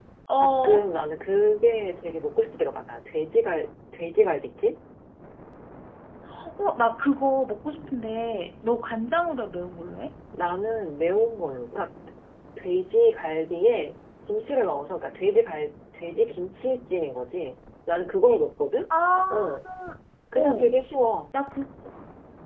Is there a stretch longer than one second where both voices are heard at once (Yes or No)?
No